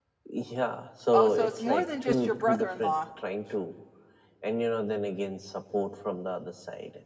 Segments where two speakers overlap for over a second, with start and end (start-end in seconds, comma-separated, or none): 1.1-2.9